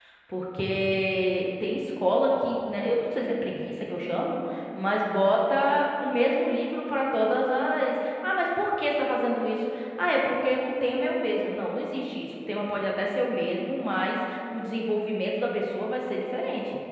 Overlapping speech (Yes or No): No